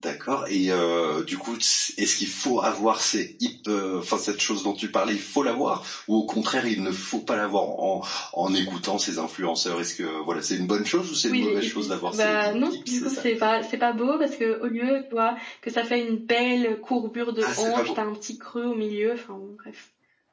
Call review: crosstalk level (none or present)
present